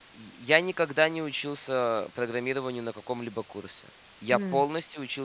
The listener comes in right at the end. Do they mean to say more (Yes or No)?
No